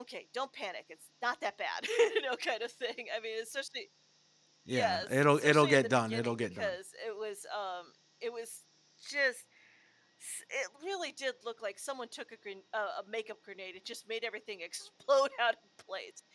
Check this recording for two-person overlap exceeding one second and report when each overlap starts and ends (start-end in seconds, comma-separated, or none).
4.7-6.7